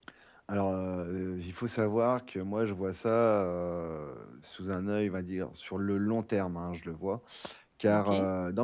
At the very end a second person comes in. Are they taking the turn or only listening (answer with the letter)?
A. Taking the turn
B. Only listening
B